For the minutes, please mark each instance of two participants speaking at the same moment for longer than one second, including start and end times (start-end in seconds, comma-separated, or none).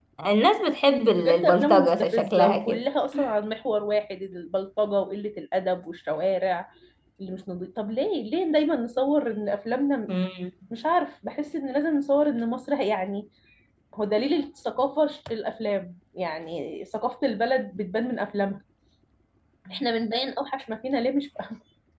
1.1-2.8